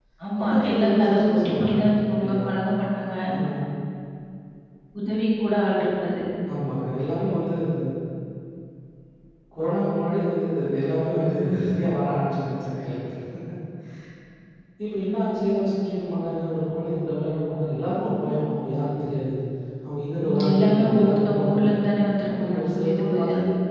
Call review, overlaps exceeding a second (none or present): present